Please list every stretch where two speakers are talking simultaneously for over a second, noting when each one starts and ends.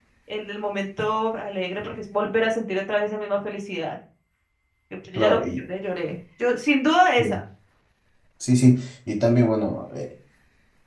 none

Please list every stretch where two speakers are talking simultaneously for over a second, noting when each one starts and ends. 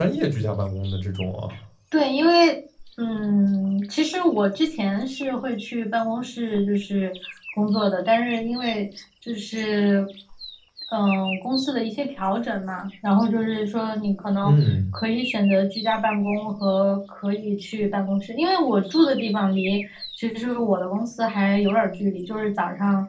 none

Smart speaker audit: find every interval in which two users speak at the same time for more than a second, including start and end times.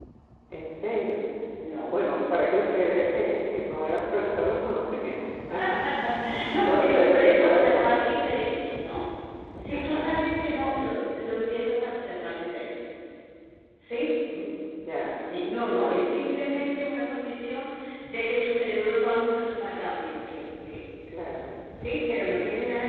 6.6-8.0

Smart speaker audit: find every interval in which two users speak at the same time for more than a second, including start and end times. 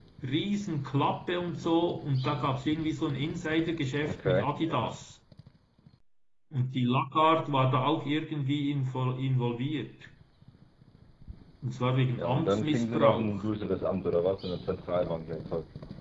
12.2-13.4

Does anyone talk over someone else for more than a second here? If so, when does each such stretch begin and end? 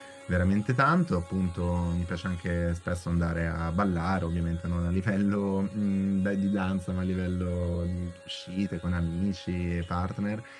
none

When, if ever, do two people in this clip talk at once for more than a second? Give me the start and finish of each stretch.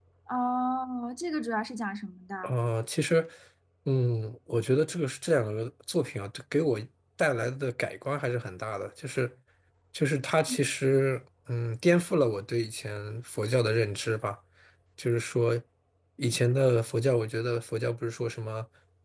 none

